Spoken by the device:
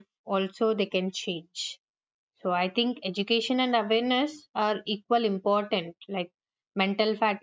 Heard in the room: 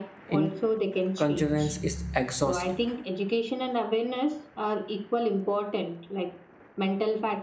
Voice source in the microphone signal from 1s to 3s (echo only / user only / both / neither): both